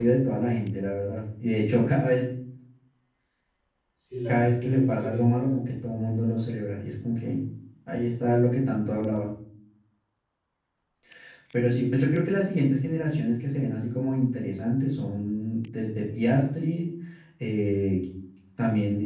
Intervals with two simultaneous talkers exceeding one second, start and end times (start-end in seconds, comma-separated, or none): 4.3-5.6